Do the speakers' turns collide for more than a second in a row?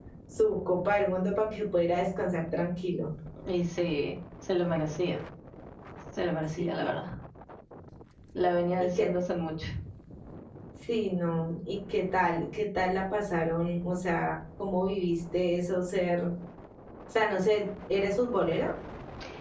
No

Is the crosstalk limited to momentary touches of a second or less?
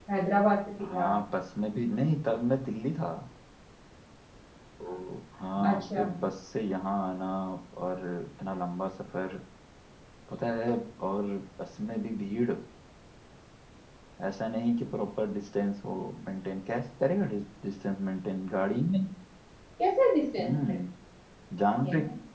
Yes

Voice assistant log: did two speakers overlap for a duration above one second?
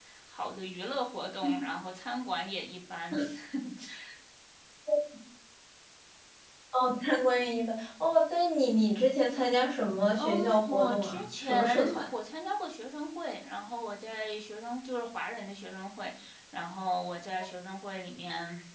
Yes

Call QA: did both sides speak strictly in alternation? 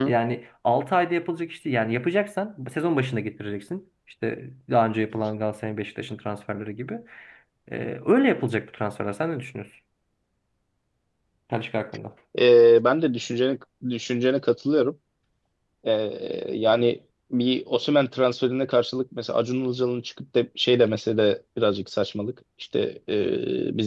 Yes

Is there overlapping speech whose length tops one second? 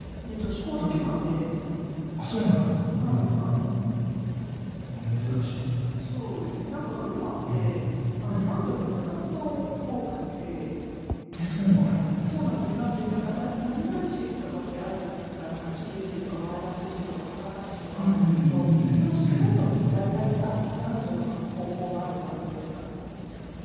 Yes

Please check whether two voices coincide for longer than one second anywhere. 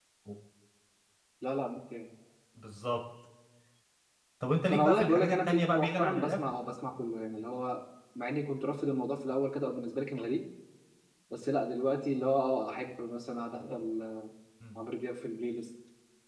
Yes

